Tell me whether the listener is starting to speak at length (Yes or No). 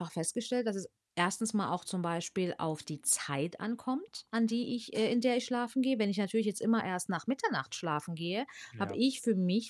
No